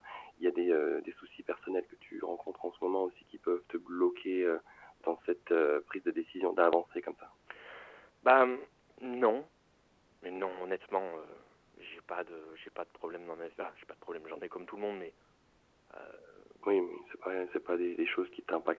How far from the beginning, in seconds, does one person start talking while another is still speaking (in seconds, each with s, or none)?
none